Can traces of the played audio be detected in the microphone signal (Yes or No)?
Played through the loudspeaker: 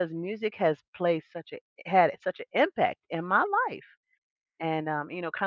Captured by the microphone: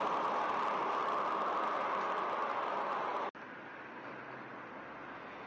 No